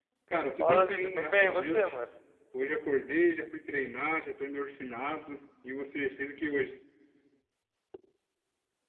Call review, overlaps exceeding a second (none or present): present